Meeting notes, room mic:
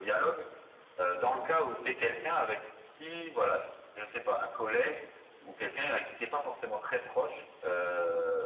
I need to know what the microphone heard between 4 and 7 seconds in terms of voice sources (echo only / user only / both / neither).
echo only